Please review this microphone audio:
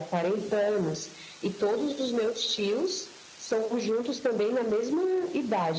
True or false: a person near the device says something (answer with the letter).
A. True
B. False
B